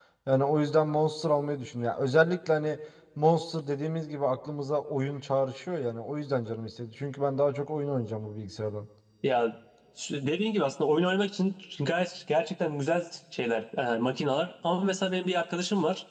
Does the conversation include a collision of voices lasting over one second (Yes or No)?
No